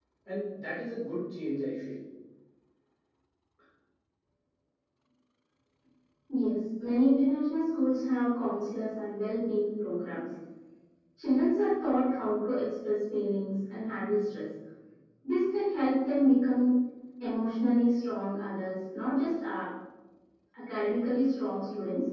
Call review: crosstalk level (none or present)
none